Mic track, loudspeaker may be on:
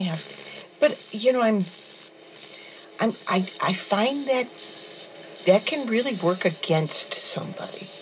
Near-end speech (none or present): none